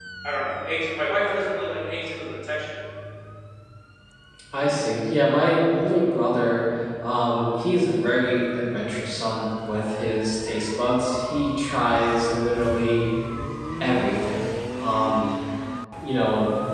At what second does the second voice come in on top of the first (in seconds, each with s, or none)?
none